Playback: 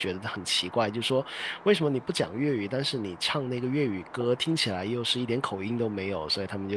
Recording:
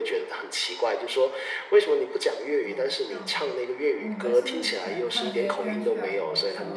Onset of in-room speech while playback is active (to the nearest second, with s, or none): 3 s